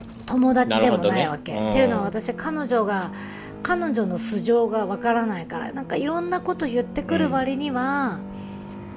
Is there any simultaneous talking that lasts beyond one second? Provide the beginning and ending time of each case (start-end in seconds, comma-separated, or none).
0.7-2.1